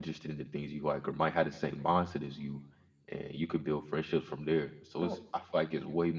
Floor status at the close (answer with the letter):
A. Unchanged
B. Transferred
A